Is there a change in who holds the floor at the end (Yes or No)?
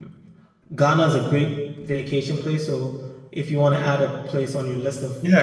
Yes